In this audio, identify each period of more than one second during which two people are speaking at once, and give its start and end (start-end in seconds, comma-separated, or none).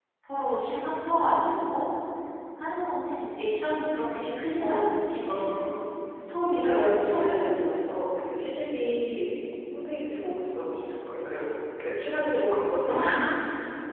6.7-8.0